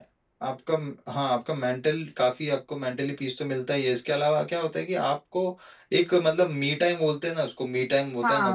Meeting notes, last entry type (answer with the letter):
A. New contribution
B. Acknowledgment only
A